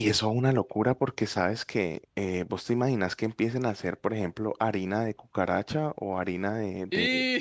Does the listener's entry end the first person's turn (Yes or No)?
No